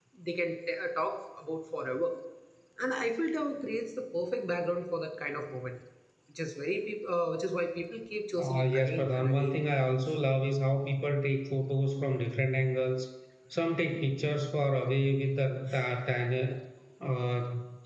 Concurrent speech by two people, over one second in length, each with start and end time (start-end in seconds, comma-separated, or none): 8.4-9.6